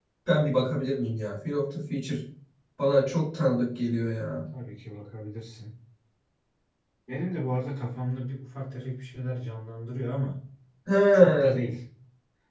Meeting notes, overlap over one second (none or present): none